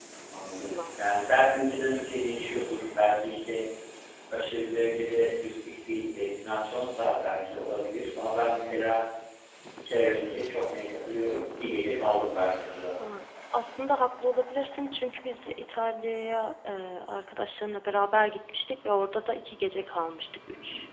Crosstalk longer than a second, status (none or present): none